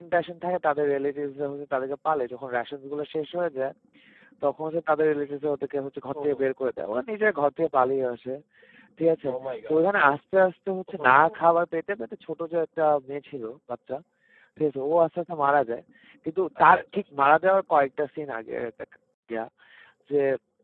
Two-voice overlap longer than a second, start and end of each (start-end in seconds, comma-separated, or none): none